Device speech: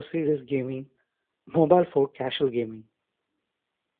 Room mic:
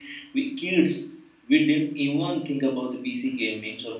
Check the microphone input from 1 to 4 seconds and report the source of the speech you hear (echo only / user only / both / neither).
user only